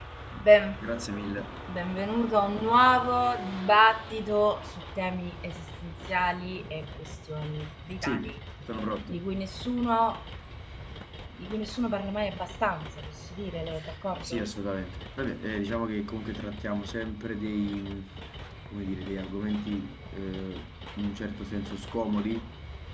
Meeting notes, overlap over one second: none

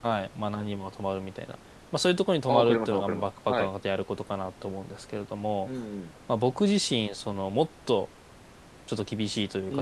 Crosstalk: present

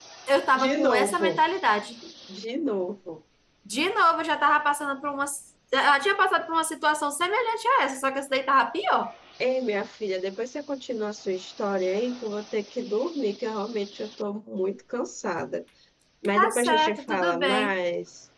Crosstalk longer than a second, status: present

